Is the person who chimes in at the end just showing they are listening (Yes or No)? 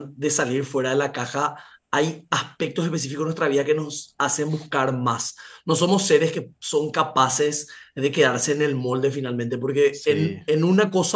Yes